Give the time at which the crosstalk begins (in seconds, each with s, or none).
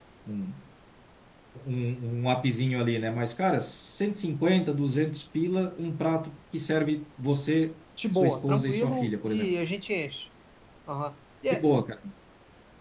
8.0 s